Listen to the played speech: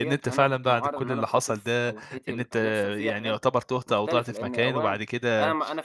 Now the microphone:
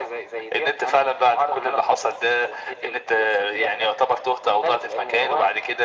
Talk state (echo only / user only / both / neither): echo only